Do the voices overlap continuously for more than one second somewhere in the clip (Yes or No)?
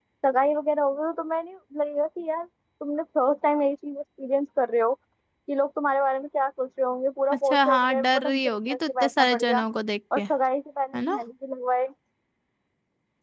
Yes